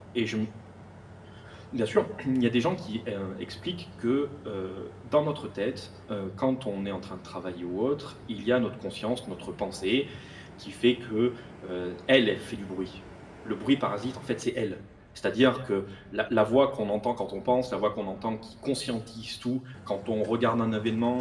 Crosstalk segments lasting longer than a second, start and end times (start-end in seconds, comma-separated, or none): none